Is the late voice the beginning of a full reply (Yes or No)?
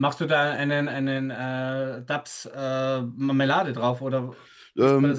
Yes